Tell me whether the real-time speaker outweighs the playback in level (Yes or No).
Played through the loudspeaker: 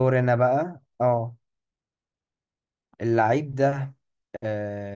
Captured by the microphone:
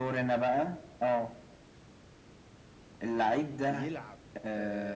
No